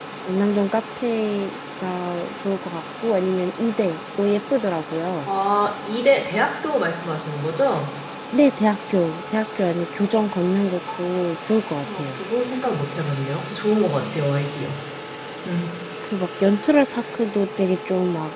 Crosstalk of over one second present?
No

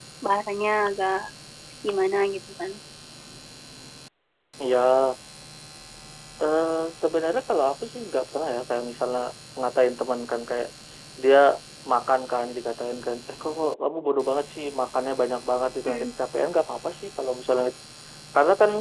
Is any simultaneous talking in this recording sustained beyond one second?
No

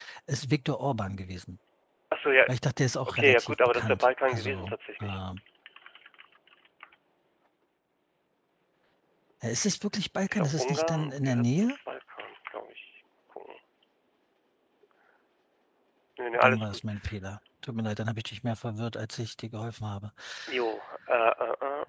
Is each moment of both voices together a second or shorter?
No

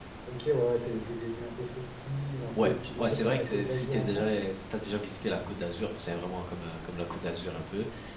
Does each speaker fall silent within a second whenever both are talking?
No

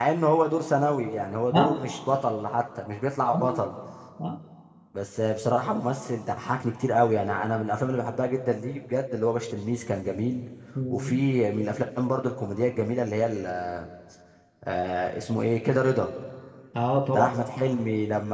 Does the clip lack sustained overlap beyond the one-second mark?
Yes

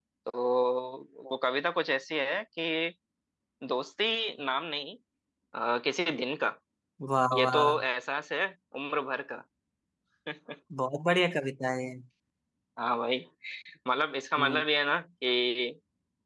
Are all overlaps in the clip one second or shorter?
Yes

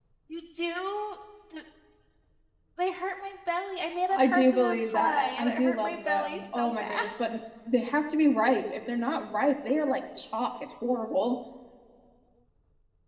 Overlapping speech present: Yes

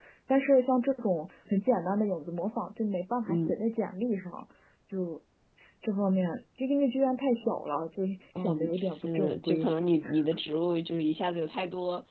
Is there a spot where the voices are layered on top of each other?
Yes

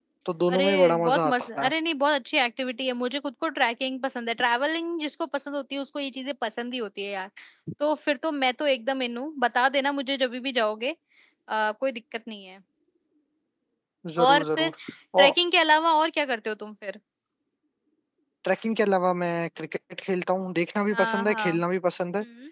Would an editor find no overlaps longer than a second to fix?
No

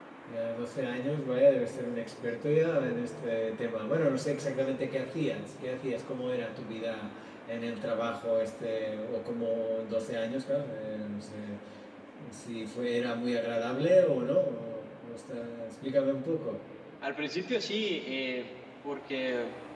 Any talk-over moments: No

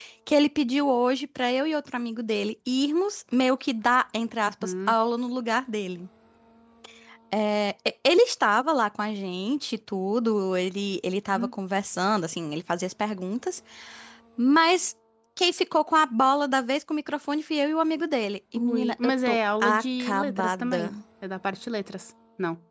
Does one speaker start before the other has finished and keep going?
Yes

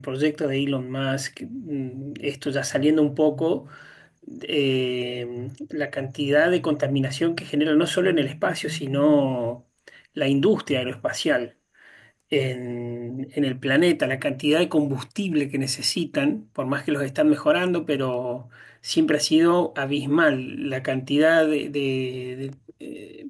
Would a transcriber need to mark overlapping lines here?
No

